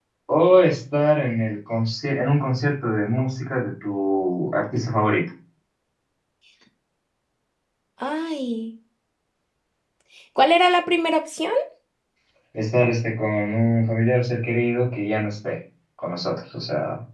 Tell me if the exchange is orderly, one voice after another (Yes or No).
Yes